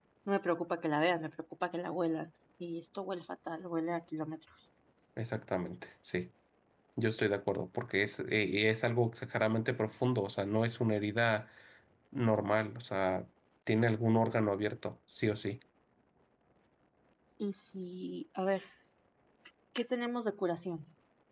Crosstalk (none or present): none